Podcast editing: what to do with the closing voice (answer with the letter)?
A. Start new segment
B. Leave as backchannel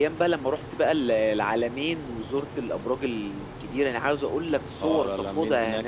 A